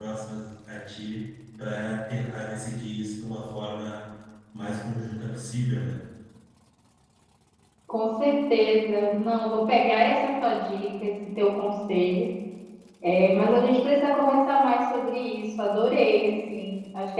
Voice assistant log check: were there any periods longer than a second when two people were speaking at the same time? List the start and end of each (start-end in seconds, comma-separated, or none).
none